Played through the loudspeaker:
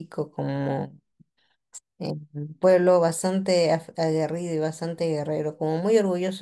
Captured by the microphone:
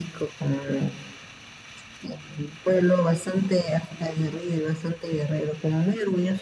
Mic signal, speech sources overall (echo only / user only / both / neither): echo only